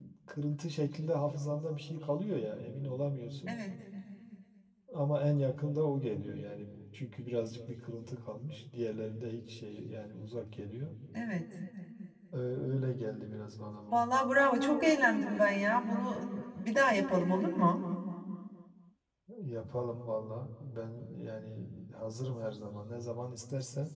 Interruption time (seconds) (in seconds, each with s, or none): none